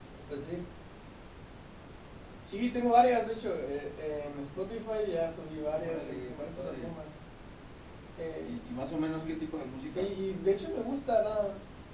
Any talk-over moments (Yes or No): Yes